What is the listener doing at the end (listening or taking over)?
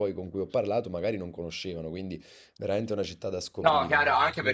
taking over